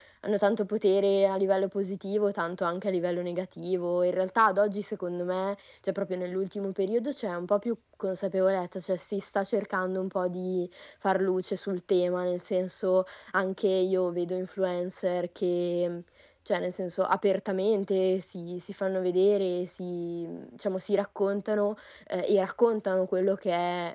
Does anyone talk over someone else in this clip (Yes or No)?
No